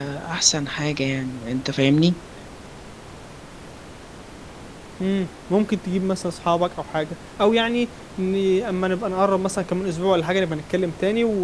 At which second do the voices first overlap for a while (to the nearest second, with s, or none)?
none